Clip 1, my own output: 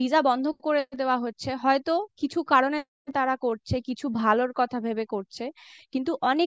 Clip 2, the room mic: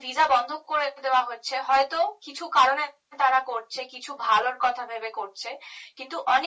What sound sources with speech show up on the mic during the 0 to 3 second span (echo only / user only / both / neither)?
echo only